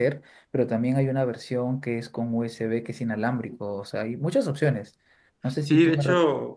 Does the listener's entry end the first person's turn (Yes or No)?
Yes